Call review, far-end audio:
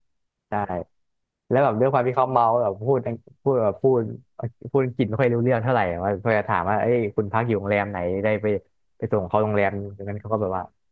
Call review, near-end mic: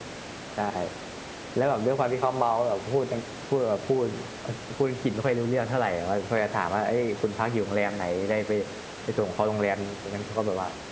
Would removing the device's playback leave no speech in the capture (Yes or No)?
Yes